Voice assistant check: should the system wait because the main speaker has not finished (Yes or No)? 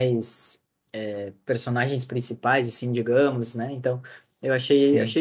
Yes